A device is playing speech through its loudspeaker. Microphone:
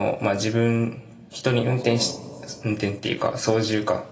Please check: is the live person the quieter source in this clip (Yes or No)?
Yes